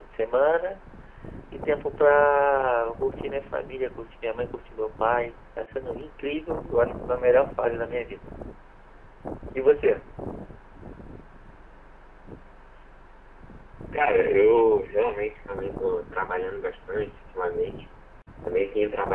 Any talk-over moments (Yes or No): No